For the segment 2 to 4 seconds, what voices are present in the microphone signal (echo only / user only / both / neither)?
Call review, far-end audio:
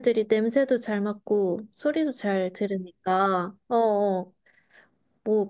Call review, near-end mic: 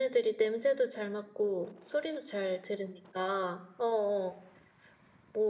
echo only